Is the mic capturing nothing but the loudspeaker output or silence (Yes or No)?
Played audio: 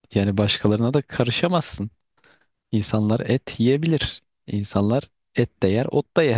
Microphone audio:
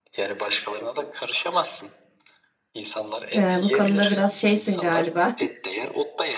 No